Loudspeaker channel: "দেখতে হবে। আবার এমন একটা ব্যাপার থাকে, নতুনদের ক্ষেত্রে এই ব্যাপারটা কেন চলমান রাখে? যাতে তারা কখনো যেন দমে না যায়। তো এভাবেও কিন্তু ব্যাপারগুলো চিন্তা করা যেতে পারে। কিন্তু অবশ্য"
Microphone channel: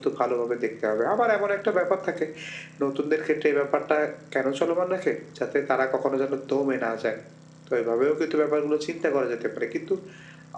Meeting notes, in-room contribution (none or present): none